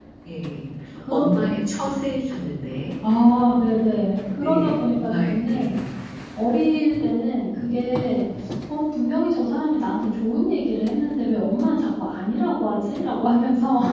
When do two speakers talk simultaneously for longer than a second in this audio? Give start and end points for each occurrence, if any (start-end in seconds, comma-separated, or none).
4.4-5.7